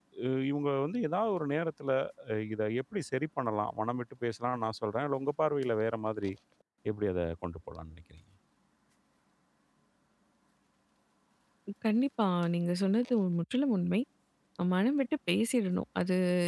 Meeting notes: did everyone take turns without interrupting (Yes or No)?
Yes